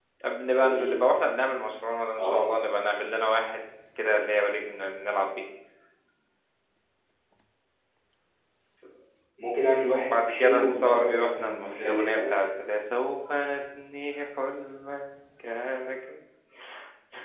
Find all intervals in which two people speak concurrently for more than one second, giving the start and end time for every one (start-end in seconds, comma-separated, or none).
10.1-12.3